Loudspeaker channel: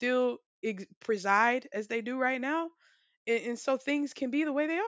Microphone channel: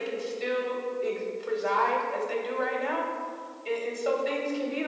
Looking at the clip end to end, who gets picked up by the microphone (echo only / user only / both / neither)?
echo only